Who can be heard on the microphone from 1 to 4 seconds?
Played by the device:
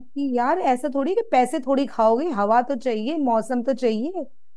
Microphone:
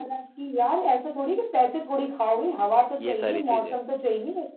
both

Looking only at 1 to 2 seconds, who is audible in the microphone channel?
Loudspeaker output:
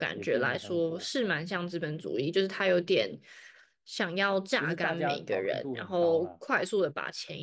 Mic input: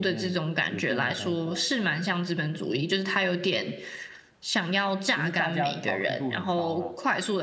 echo only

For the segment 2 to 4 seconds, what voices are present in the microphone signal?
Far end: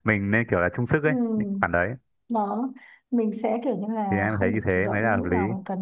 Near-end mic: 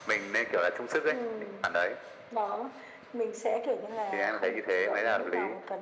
echo only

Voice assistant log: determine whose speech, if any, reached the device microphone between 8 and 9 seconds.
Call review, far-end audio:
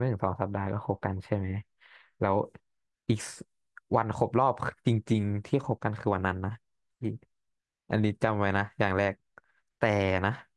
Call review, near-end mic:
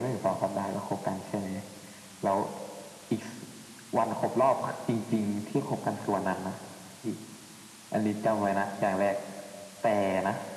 echo only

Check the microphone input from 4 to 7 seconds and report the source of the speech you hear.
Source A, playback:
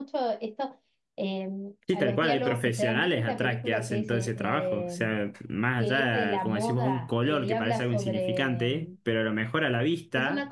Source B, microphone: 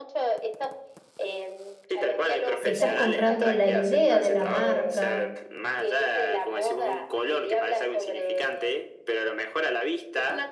both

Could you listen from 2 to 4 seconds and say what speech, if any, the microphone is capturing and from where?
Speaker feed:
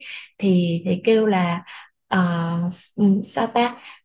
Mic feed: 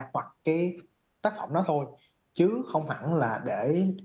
user only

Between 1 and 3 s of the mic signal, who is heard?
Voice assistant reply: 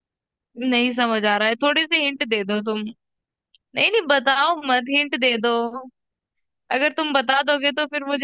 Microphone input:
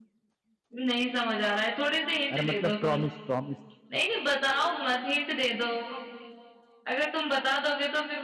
both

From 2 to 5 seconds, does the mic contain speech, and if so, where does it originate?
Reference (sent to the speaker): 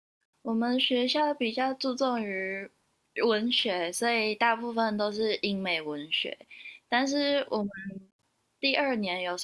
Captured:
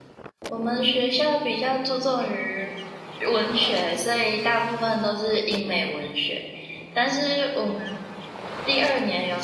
echo only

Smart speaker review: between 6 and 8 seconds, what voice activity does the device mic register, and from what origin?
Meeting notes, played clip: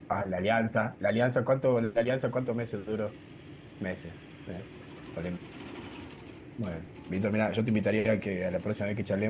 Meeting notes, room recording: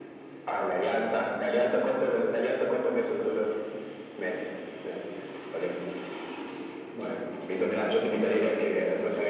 echo only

